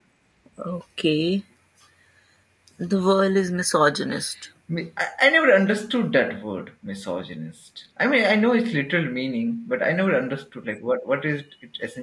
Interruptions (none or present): none